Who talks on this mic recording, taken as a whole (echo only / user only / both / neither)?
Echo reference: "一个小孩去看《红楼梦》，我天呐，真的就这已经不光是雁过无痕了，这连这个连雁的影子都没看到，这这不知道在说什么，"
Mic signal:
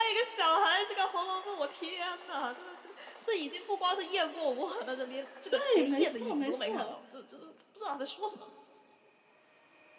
both